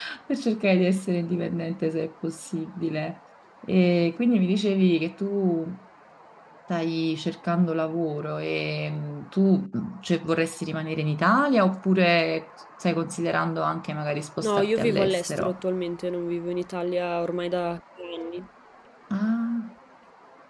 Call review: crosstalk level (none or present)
present